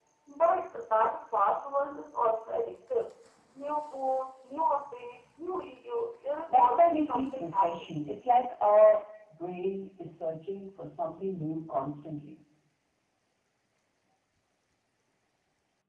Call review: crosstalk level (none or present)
present